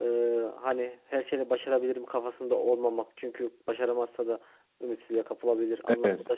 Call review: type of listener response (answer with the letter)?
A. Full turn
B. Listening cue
B